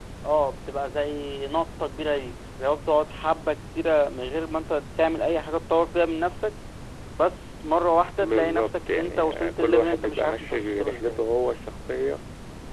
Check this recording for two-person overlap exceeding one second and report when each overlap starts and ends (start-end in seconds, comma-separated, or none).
8.2-11.2